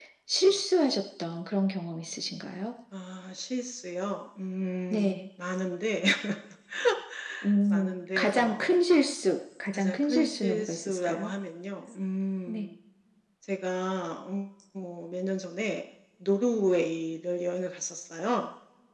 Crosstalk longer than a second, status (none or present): present